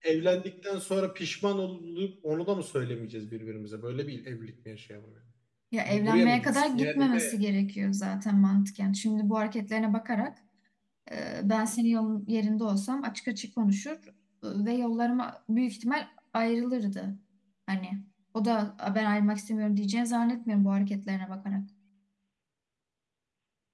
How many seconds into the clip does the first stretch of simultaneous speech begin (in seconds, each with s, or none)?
5.9 s